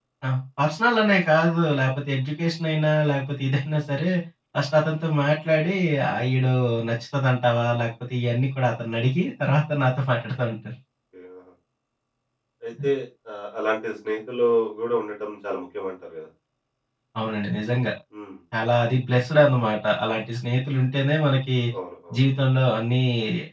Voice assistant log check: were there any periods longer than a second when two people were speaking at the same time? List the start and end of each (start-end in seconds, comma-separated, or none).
none